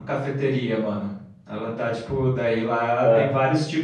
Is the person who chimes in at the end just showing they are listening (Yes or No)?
Yes